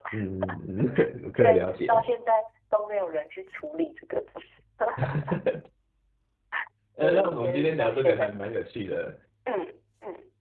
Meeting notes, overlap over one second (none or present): present